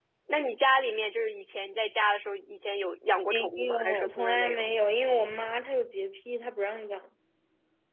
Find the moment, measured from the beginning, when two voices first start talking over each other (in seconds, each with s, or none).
3.3 s